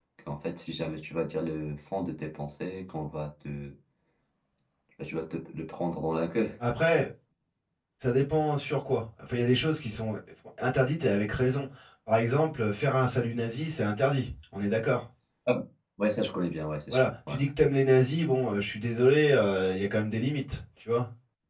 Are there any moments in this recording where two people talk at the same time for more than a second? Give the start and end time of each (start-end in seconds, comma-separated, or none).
none